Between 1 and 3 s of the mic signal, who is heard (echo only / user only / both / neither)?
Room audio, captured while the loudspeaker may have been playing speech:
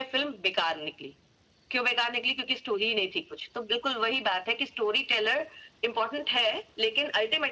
echo only